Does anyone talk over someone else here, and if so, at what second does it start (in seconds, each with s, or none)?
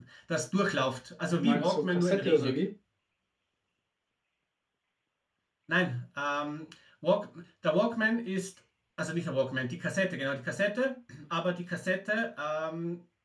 1.3 s